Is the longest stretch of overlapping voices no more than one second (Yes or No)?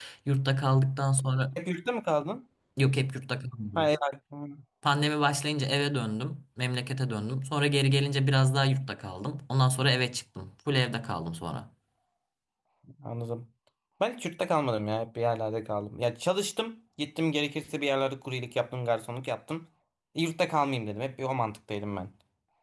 Yes